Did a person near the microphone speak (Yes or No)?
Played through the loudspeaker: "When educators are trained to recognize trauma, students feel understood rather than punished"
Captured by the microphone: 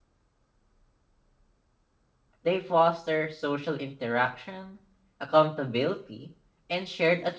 Yes